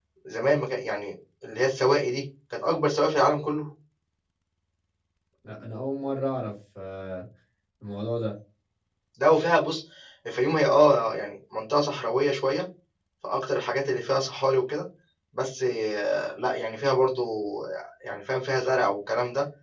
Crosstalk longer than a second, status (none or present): none